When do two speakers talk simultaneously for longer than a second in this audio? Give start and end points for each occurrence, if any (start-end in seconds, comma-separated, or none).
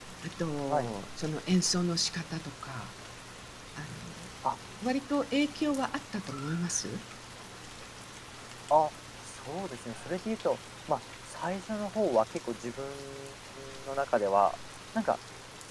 none